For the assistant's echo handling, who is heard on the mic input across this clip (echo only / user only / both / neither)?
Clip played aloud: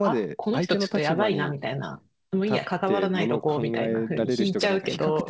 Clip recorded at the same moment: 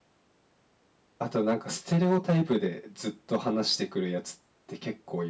user only